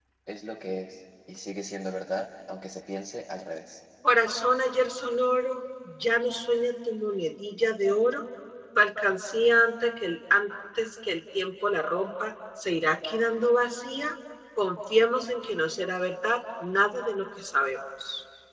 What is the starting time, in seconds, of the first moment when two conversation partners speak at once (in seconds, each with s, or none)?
none